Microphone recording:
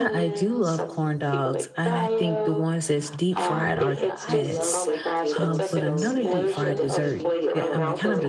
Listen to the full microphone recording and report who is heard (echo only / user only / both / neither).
both